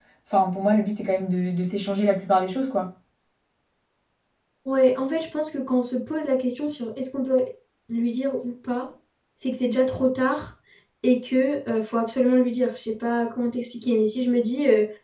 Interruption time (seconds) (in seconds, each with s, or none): none